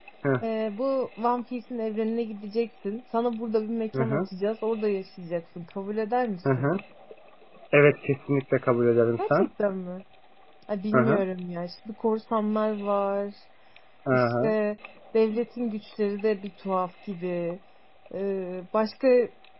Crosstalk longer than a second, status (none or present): none